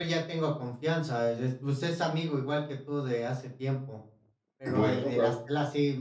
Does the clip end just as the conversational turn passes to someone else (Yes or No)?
No